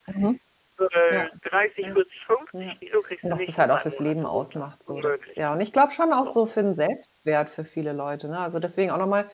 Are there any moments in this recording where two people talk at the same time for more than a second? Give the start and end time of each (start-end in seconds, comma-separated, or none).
3.2-5.4